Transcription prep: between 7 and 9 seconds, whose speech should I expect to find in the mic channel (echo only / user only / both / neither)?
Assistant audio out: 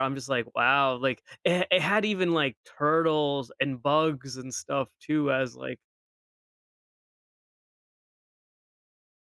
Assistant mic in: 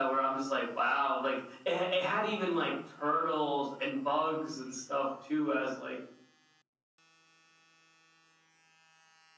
neither